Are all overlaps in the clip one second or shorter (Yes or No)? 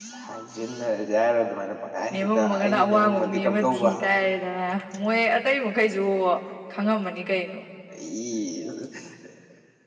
No